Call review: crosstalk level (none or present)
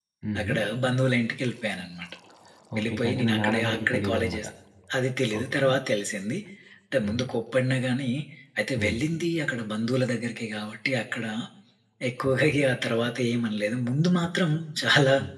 present